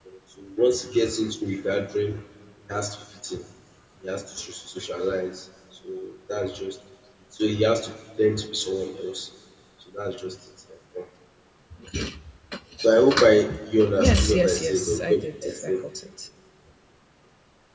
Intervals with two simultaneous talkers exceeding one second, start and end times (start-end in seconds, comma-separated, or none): 14.0-15.7